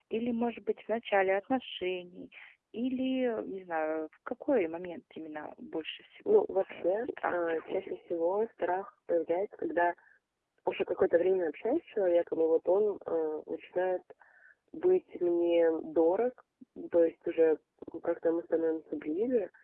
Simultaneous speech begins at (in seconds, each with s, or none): 6.2 s